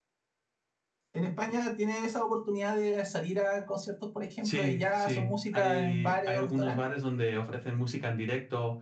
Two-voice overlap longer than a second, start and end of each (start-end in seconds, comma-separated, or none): 4.4-6.8